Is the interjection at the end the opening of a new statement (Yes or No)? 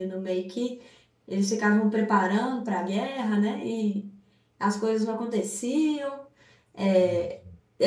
No